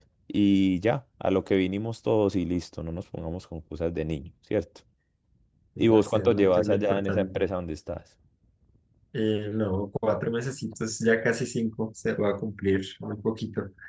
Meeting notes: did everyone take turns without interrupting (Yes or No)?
No